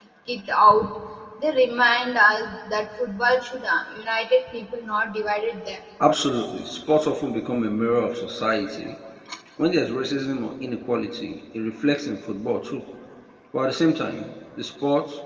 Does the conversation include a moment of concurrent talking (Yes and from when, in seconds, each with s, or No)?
No